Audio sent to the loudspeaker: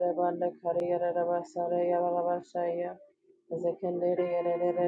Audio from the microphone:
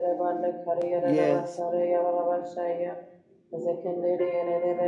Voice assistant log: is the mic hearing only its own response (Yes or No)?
No